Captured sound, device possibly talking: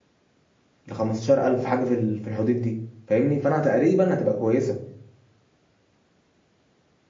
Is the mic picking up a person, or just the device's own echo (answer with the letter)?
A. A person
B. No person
A